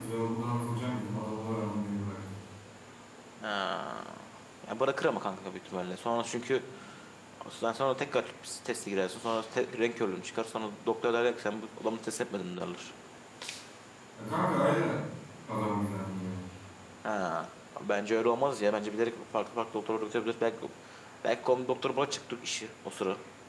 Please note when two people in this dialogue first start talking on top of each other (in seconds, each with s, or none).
none